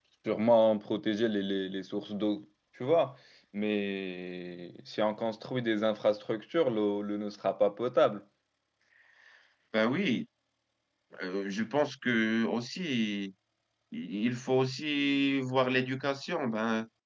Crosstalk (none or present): none